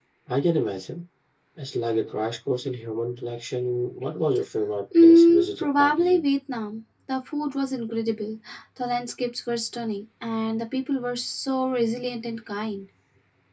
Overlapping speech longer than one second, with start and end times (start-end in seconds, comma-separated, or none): 5.0-6.2